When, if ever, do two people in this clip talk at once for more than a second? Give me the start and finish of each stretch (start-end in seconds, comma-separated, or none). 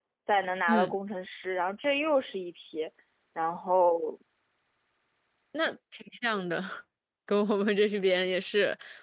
none